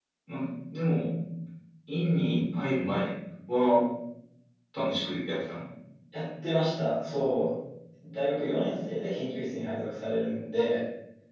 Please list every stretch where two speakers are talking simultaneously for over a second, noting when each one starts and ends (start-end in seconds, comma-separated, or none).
none